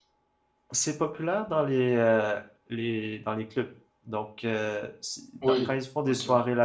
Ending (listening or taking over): listening